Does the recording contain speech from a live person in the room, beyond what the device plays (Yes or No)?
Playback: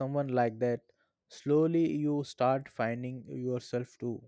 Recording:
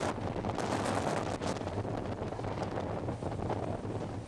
No